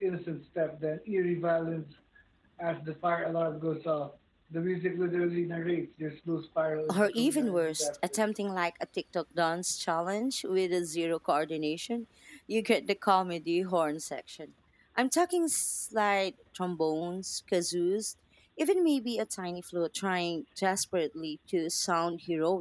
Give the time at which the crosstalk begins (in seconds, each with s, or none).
6.9 s